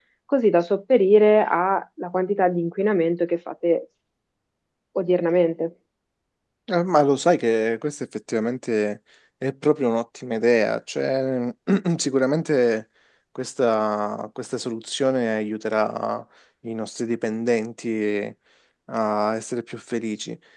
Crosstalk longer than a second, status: none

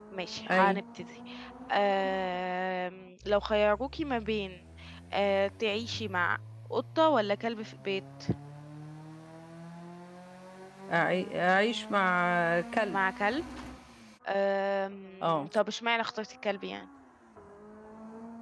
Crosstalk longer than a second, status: none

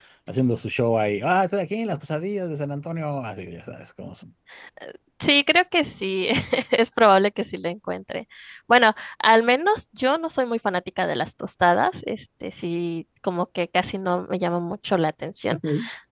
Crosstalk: none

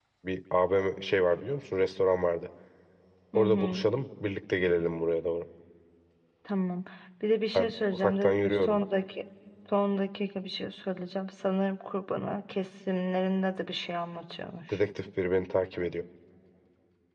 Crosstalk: present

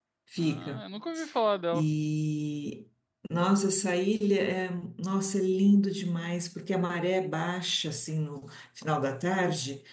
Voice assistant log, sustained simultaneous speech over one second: none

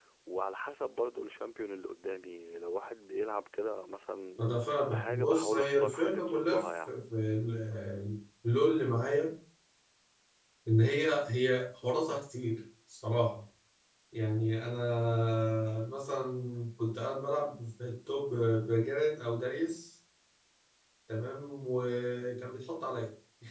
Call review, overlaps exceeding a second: present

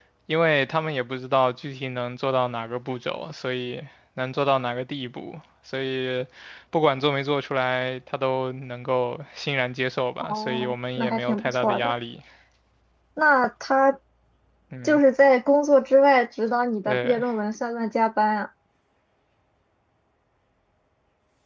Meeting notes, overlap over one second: present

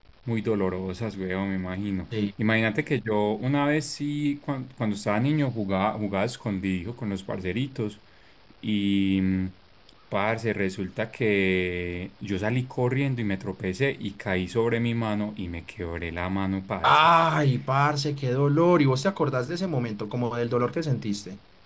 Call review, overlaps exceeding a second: none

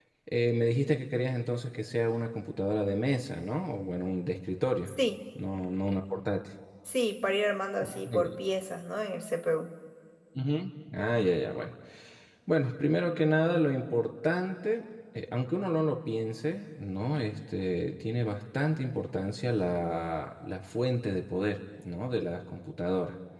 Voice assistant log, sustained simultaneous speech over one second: none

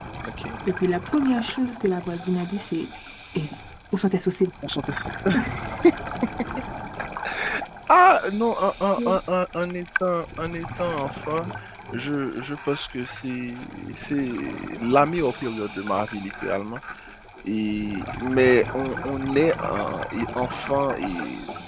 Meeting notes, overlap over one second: none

